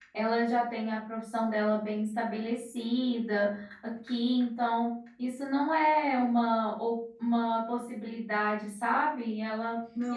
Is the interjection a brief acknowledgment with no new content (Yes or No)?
Yes